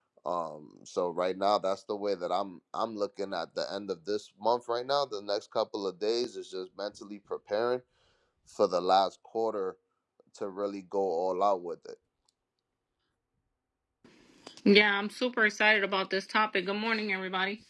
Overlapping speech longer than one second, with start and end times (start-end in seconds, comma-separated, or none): none